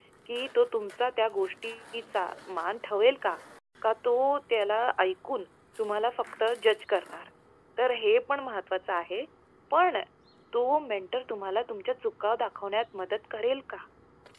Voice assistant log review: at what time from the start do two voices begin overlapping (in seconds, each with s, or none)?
none